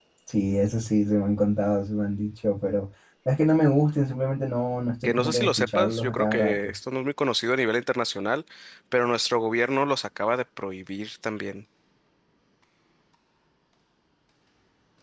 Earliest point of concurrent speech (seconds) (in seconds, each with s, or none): 5.0 s